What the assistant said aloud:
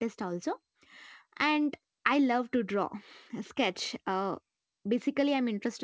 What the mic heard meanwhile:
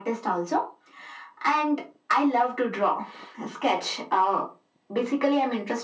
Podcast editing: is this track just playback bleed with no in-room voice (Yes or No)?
Yes